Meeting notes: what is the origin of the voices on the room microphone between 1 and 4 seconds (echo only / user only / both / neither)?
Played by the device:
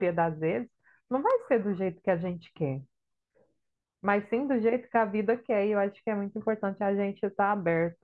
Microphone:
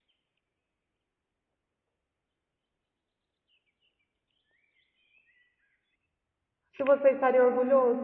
neither